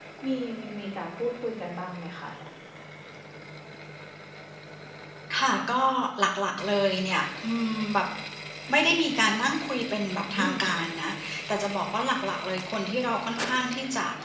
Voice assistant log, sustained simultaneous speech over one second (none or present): none